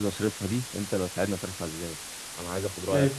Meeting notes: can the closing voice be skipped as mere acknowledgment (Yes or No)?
Yes